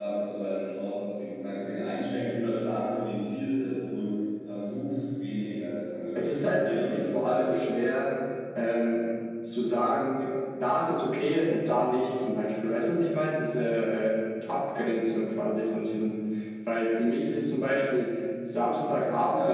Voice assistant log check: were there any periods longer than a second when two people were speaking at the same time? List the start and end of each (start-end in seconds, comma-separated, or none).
6.2-7.8